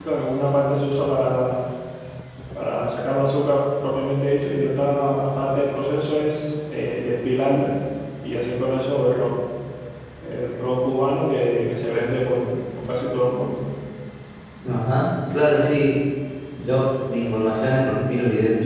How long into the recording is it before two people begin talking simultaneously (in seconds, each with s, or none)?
none